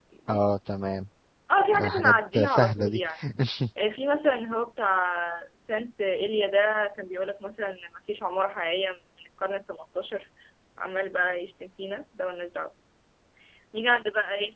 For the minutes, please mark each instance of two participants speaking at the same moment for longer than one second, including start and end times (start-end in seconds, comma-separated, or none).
1.7-3.0